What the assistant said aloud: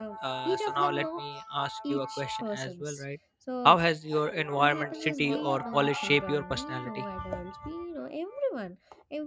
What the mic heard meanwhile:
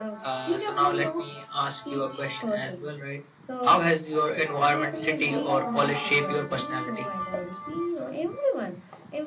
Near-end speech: none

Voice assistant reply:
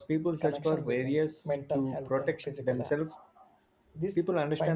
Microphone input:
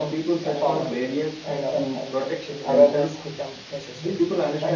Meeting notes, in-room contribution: present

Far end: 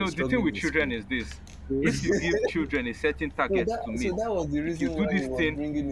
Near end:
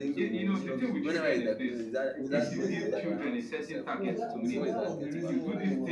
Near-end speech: present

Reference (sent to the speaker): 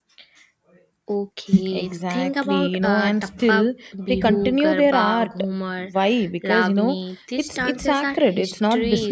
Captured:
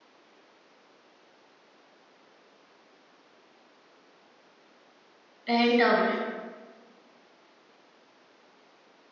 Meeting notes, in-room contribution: present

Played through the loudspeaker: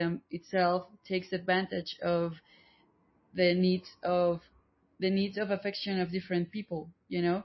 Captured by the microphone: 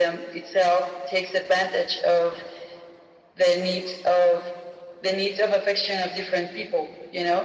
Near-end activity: none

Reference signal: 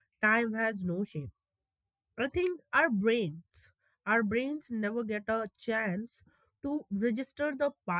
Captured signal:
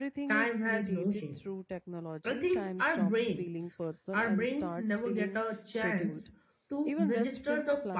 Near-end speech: present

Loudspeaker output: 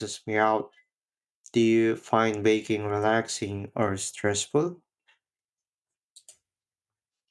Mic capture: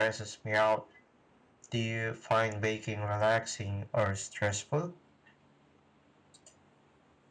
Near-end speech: none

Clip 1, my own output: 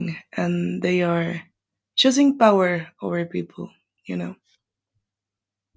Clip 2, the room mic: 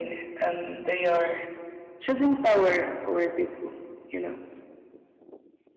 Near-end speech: none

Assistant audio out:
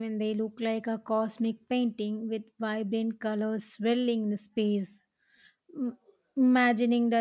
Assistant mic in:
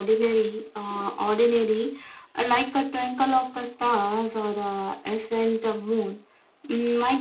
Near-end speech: present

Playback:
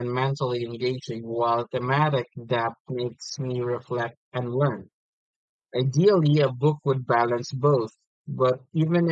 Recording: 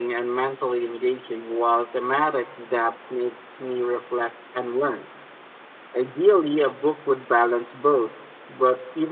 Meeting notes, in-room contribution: none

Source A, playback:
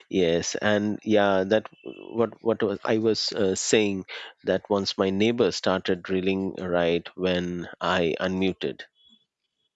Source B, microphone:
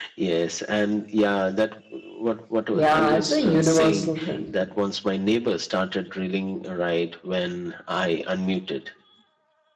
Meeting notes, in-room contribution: present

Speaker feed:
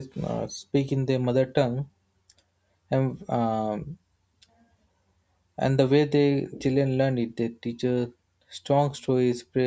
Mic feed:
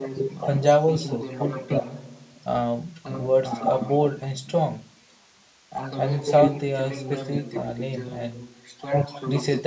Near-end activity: present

